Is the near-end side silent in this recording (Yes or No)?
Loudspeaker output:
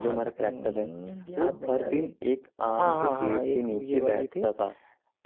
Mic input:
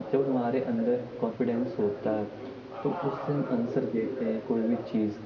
No